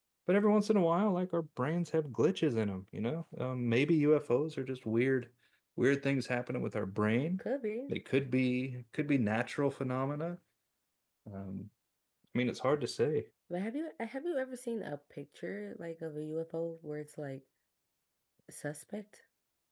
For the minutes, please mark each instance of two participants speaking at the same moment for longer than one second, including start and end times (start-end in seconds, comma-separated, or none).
none